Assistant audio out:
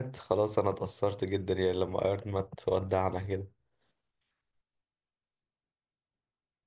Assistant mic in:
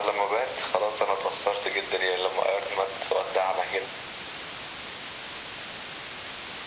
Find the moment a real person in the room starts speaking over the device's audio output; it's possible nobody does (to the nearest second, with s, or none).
none